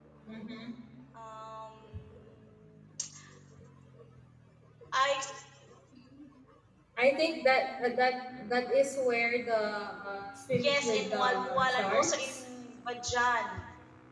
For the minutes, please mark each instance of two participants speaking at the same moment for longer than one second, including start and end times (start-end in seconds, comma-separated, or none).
10.5-12.4